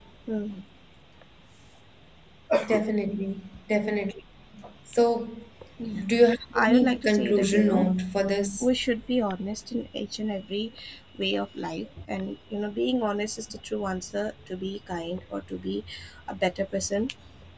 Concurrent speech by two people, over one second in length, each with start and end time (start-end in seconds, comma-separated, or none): 6.5-7.9